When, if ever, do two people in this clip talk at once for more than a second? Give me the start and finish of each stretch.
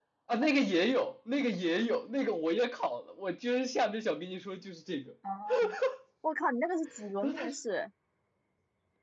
none

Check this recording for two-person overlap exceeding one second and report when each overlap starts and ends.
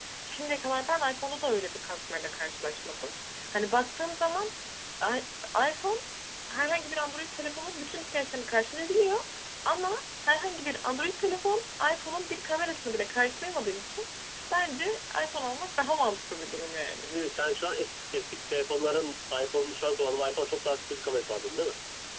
none

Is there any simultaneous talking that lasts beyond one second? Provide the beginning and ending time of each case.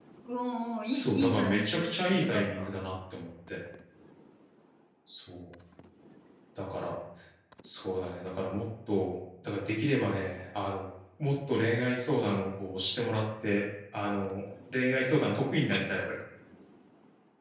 0.9-2.7

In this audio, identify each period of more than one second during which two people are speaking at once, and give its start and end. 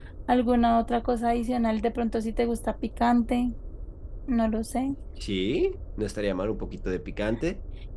none

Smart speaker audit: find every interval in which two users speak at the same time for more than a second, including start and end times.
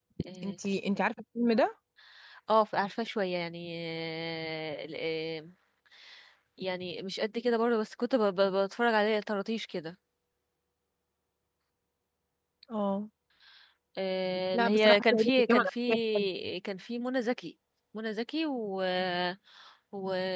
14.5-16.3

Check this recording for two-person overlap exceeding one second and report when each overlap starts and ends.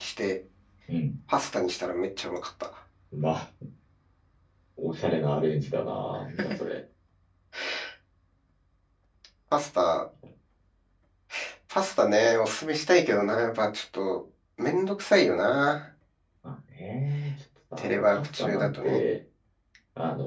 17.8-19.0

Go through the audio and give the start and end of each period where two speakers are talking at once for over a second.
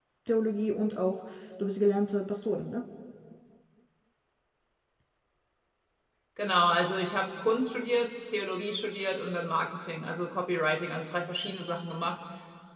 none

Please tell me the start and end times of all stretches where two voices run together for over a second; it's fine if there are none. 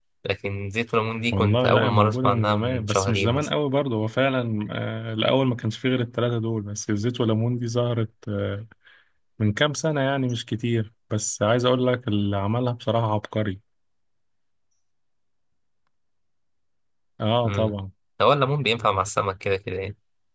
1.3-3.5

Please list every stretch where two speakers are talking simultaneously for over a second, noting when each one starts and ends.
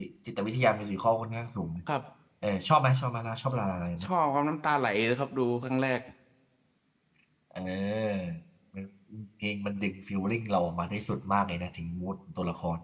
none

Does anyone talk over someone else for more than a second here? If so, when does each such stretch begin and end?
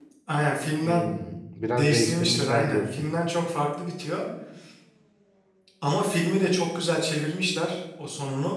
1.7-3.1

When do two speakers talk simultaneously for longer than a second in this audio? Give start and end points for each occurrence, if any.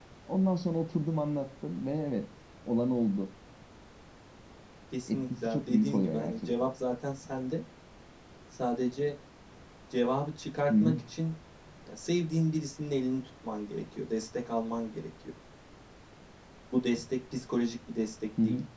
5.1-6.7

